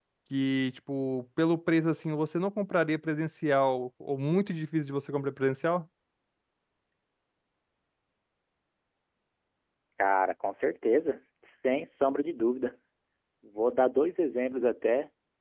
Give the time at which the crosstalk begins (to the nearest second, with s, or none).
none